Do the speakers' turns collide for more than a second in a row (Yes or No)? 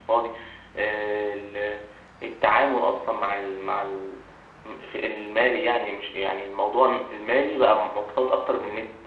No